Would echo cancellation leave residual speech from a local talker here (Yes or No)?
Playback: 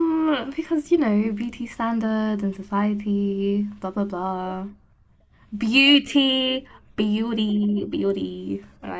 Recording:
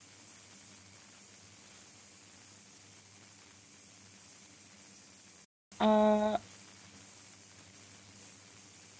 Yes